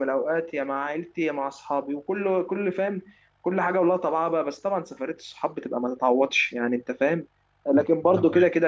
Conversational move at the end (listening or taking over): listening